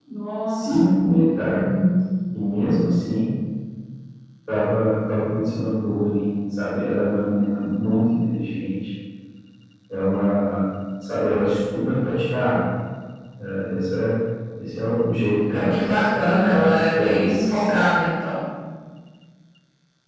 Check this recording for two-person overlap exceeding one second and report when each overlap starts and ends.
15.5-17.8

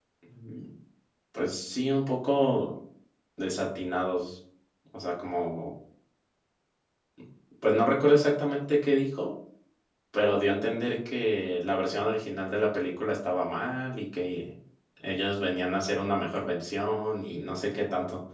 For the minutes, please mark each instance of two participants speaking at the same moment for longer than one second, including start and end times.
none

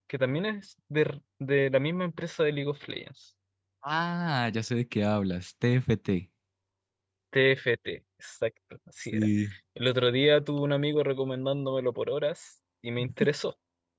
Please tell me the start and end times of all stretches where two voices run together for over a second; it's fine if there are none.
none

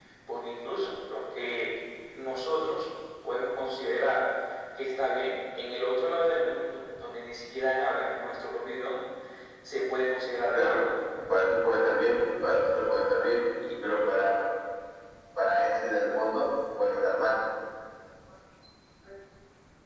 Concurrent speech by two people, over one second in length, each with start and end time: none

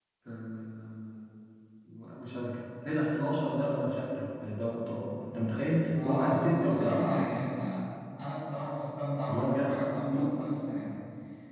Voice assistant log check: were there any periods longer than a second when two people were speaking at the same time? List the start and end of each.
6.0-7.3

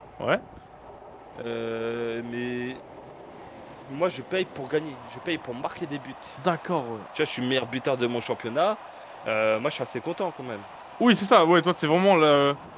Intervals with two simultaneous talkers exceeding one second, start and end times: none

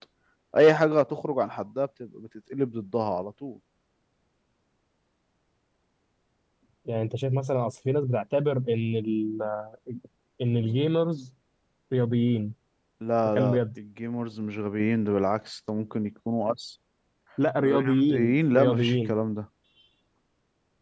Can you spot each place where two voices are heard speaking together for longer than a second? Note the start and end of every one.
17.6-19.1

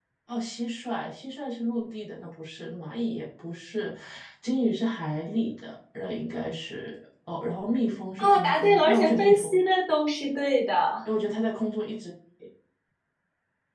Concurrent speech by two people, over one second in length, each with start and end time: 8.2-9.6

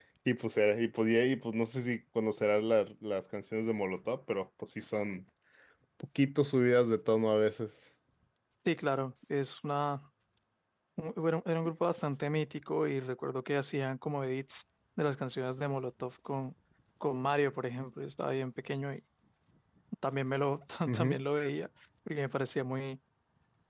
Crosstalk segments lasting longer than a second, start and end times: none

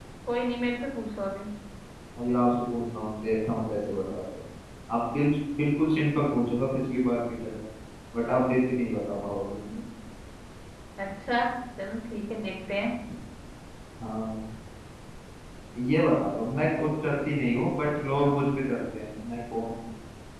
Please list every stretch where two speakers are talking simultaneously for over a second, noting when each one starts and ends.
none

